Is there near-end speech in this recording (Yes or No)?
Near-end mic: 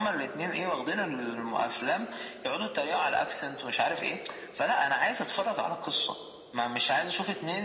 No